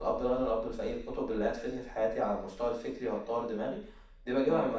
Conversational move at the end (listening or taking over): listening